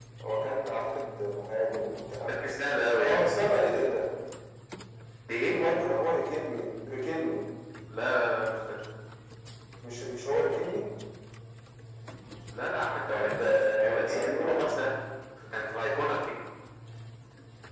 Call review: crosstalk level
present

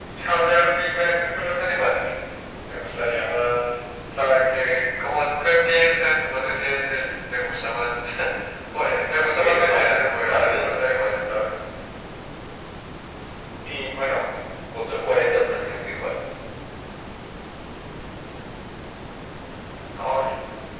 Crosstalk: present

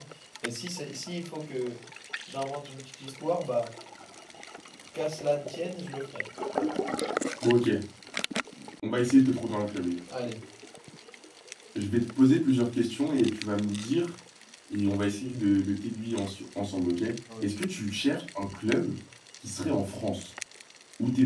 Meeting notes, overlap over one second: none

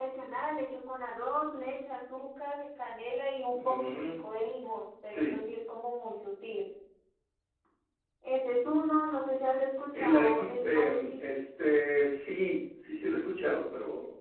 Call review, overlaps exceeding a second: present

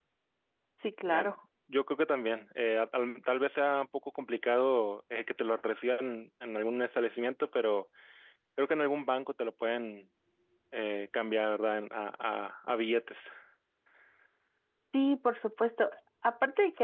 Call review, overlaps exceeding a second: none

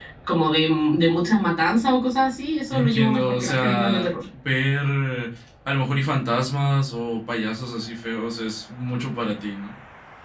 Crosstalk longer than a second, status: present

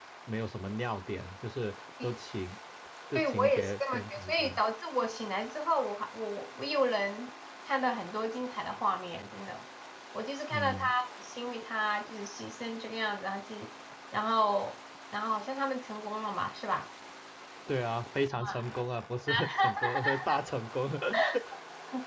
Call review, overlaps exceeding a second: present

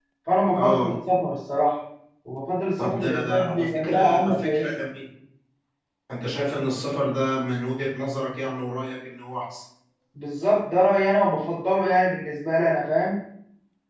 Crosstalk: present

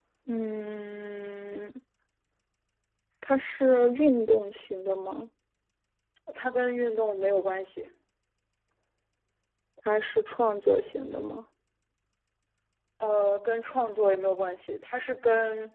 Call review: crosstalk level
none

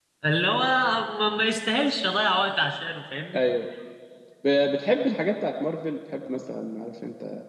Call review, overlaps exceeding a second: none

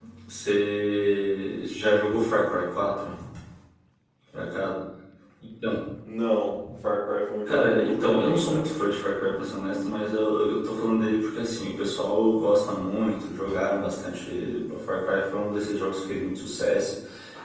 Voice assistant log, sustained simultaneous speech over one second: present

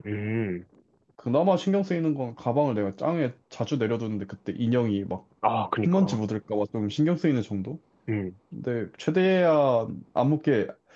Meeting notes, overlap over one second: none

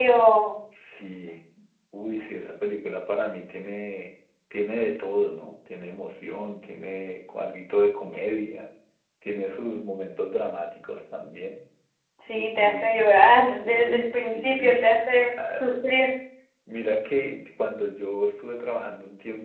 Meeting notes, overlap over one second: present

